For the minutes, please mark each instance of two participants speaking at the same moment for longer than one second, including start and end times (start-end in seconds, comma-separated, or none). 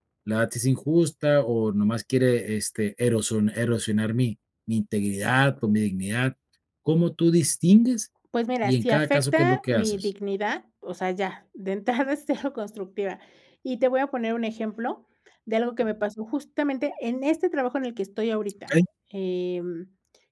8.6-10.1